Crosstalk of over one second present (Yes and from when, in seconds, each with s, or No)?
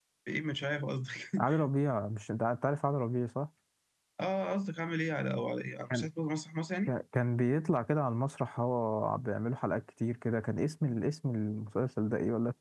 No